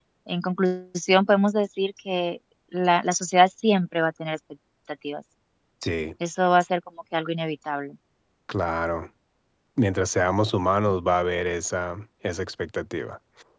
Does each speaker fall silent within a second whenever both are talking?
Yes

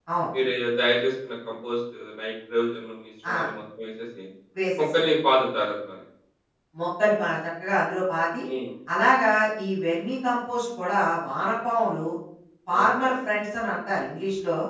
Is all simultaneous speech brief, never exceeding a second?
Yes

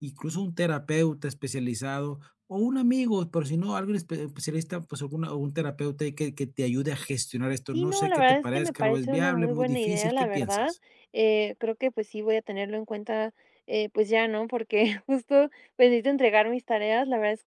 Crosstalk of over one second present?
Yes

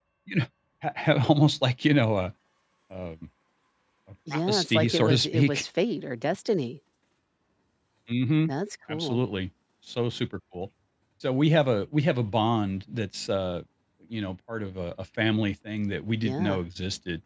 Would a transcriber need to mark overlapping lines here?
Yes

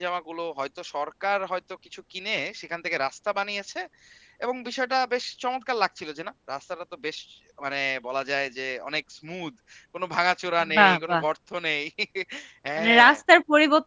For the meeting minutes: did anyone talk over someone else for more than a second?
No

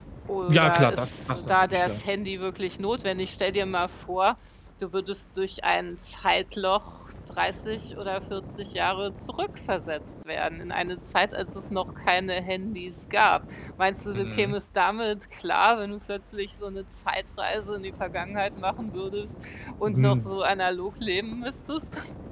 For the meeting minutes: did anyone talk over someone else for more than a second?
Yes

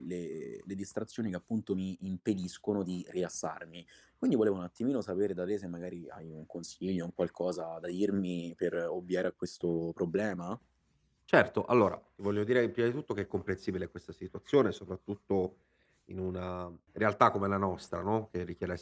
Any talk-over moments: No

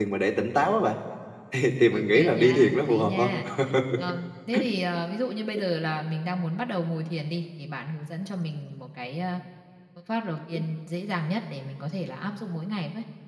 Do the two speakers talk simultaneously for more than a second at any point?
Yes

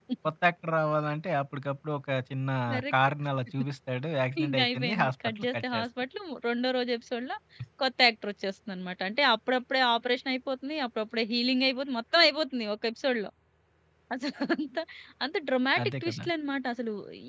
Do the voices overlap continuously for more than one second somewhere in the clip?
Yes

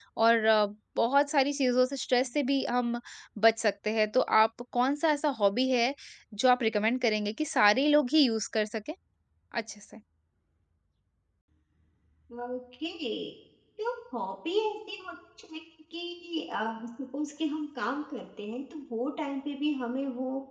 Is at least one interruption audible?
No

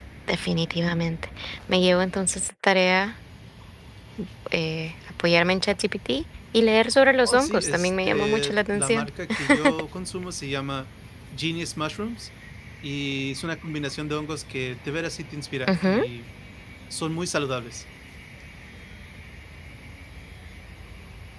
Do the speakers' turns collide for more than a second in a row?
Yes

